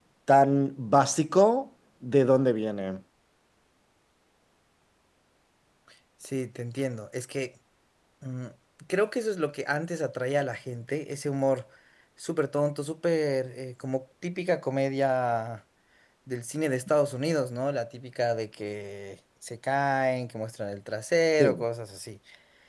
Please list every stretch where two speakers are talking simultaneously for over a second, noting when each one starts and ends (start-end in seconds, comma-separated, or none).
none